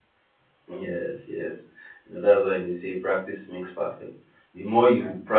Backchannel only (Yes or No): Yes